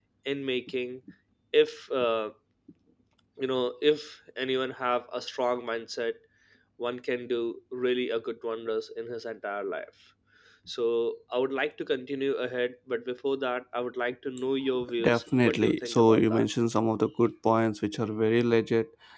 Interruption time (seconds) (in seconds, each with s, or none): 14.8 s